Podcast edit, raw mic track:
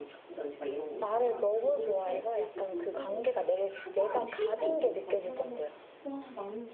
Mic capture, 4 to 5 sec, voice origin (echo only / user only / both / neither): both